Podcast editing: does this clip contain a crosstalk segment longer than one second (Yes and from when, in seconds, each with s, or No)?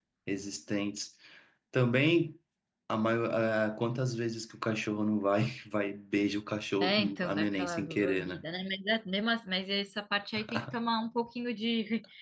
Yes, from 6.8 s